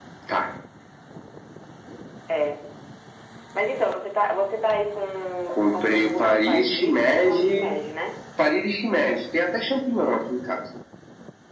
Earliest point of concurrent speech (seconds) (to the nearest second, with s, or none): 6 s